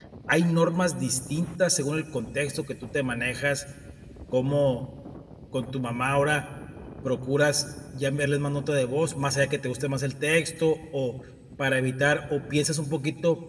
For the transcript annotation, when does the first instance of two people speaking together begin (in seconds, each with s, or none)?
none